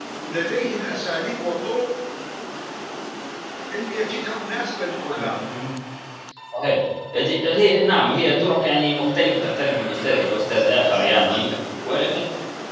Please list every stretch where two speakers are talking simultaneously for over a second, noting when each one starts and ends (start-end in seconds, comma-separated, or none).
10.0-11.4